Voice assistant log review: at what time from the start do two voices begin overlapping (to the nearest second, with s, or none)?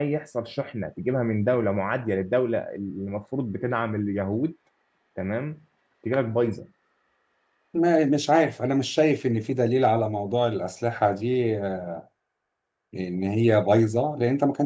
none